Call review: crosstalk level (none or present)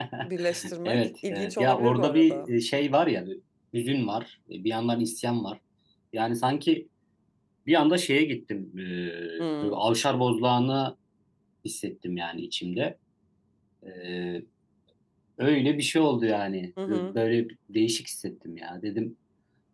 present